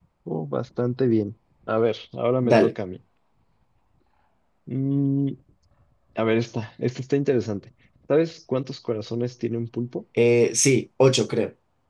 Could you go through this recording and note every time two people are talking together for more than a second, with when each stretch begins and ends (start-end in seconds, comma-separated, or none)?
none